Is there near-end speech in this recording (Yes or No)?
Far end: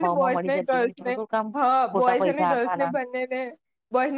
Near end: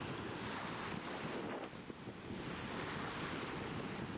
No